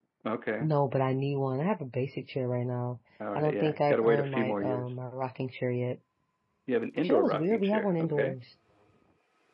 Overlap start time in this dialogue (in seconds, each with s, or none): 3.4 s